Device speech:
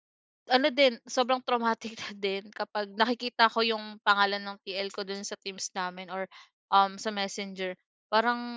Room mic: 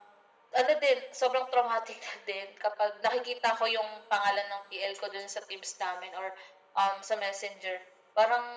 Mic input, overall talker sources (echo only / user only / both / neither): echo only